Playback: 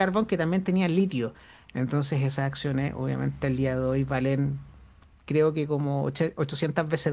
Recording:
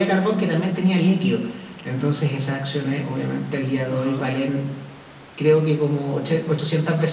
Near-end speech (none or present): present